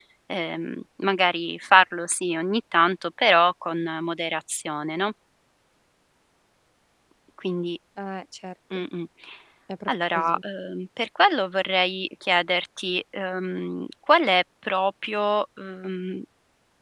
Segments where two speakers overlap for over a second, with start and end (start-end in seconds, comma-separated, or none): none